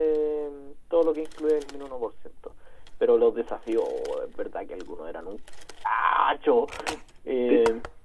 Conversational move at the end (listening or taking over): taking over